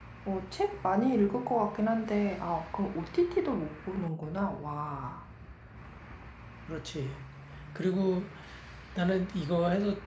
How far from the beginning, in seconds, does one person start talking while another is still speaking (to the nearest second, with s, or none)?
none